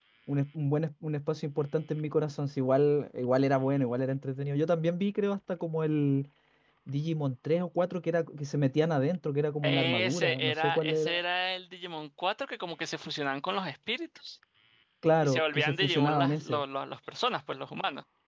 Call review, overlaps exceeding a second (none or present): present